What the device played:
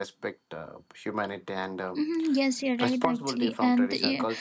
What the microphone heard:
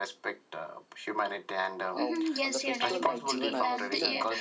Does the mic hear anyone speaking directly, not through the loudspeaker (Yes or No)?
Yes